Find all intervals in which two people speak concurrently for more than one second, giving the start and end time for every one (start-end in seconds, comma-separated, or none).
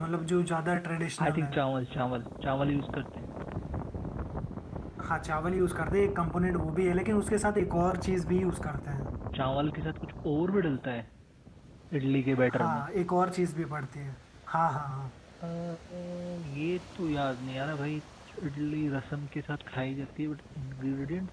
none